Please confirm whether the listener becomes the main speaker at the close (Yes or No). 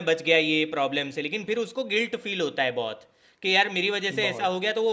No